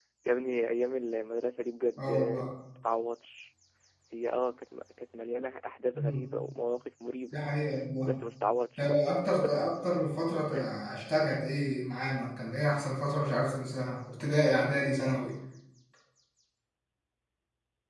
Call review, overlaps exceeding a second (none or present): none